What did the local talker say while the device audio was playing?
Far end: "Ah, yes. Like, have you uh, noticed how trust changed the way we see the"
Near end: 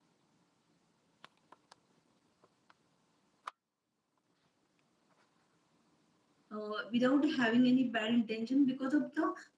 uh, without having any bad intention because of the

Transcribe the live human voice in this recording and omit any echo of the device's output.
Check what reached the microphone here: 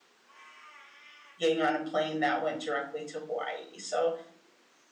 getting on a plane that went directly to Hawaii. So

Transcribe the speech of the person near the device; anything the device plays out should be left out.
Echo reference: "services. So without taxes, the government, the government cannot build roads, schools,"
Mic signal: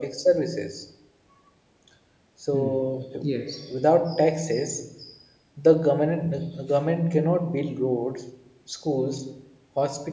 Hmm. Yes.

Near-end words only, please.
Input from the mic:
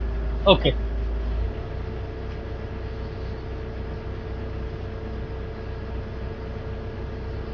Okay,

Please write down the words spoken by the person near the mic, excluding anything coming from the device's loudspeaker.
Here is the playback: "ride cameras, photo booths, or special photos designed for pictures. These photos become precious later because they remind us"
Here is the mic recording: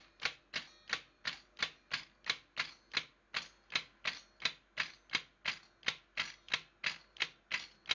none

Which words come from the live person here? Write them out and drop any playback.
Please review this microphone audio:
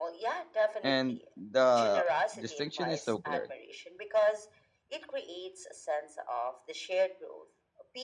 And the distinction is so clear.

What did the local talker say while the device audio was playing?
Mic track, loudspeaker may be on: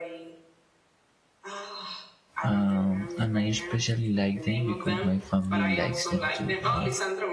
Um, and I especially like them because my family likes them too, you know.

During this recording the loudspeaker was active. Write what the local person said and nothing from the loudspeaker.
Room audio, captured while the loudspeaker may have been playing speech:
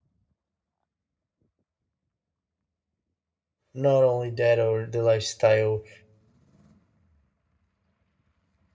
not only that or the lifestyle

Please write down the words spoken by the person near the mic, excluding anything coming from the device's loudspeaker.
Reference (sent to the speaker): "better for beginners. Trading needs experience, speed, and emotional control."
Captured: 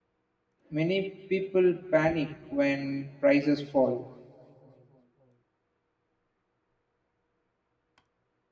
Many people panic when prices fall.

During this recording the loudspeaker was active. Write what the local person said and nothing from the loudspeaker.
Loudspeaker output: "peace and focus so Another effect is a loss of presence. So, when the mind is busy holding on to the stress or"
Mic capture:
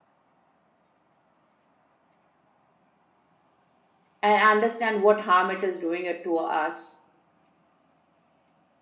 and understand what harm it is doing it to us

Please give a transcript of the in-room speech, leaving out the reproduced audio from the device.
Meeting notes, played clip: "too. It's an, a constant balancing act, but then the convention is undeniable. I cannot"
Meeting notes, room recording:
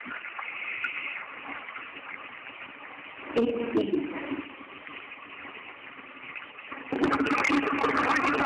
it is.

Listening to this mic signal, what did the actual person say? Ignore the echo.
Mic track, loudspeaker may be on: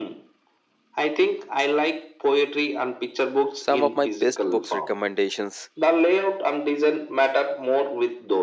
Some of my best books recommendations

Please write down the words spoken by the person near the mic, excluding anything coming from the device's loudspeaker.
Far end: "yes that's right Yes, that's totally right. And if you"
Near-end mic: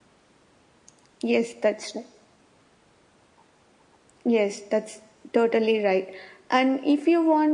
none

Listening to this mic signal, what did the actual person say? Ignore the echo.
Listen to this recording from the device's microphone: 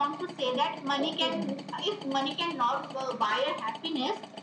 Okay.

